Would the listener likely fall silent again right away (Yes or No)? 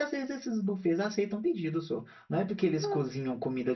Yes